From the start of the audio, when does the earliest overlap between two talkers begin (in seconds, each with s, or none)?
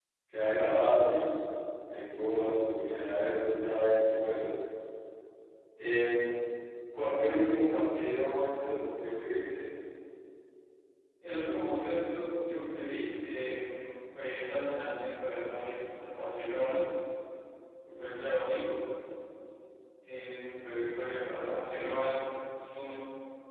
none